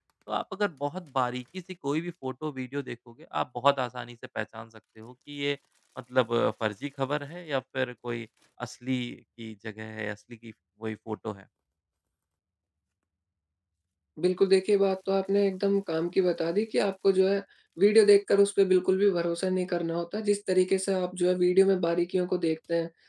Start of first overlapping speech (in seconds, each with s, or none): none